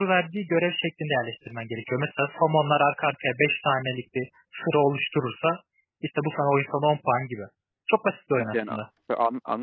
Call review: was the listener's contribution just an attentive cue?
No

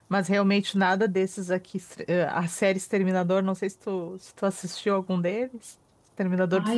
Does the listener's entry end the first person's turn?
Yes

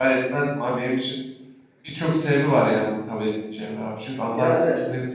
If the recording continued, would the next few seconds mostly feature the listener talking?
No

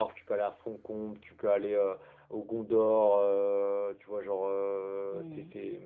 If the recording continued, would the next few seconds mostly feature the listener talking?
No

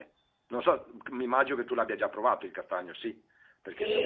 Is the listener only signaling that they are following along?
No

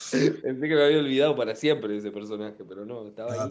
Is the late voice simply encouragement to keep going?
No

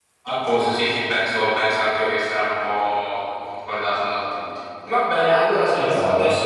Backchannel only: Yes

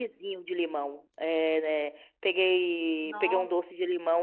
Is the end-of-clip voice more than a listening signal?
No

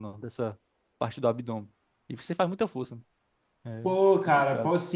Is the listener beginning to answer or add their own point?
Yes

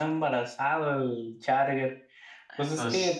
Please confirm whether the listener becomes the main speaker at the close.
No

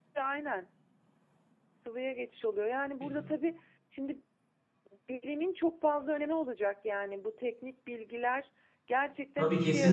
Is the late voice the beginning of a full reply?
Yes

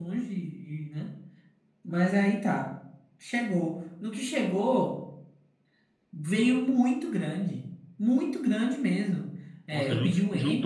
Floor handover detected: Yes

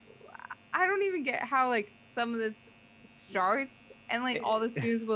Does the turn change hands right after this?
No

